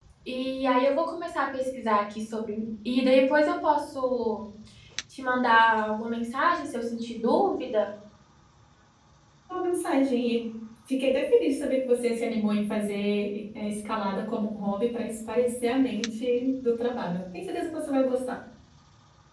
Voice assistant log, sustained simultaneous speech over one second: none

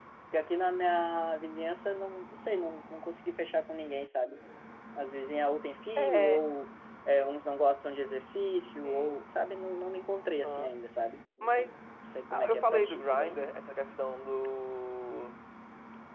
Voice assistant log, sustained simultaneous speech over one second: present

